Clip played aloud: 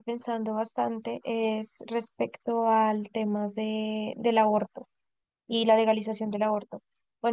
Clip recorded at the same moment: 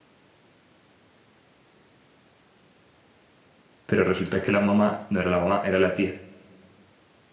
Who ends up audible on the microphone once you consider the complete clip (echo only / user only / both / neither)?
user only